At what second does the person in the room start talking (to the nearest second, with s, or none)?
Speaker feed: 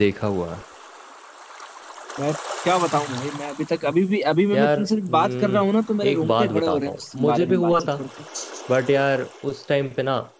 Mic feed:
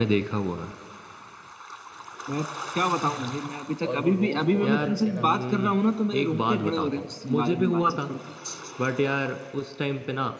4 s